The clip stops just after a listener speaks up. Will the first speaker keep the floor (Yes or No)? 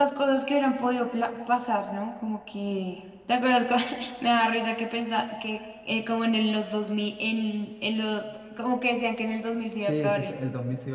No